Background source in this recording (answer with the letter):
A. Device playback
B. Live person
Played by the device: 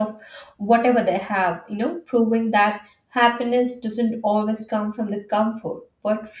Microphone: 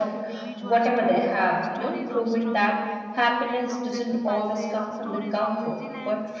B